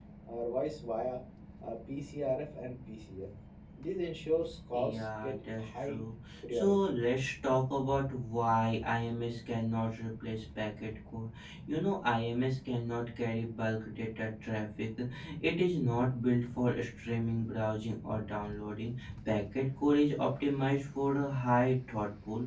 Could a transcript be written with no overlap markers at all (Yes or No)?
No